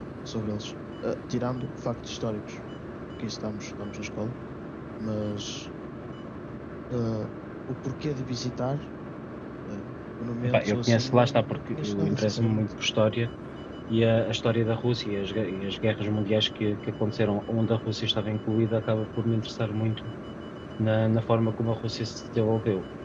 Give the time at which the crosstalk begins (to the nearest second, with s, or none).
10 s